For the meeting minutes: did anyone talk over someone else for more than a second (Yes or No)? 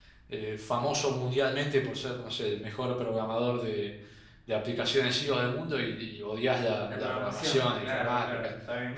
Yes